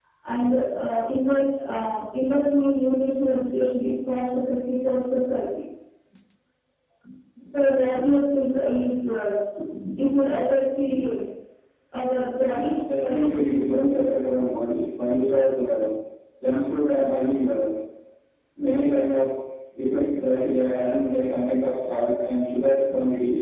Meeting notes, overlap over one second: present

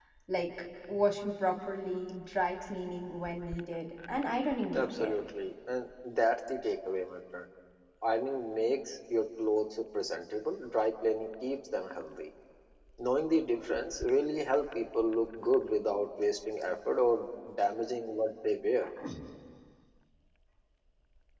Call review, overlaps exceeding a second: none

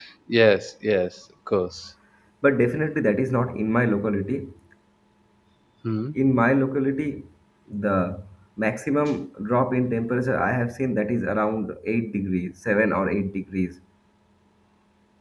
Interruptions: none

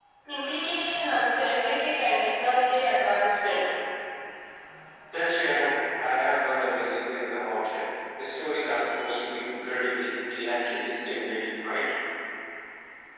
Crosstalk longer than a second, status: none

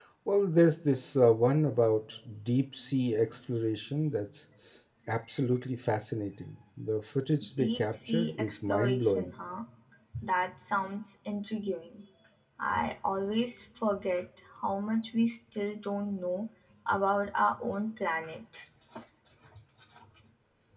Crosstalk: present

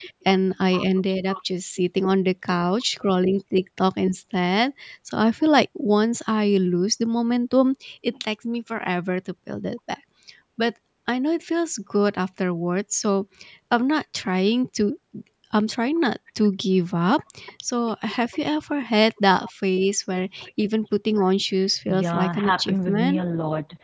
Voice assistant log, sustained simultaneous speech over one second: present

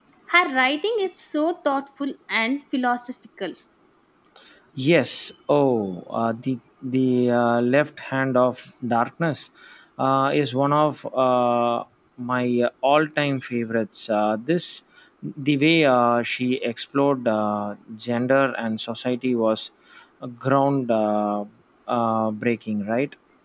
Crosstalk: none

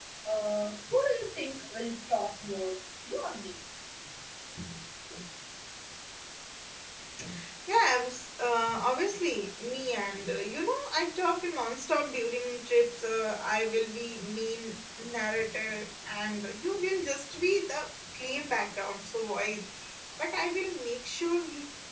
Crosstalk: none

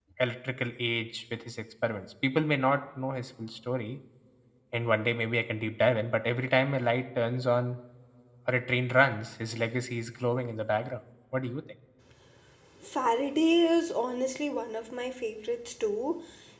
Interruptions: none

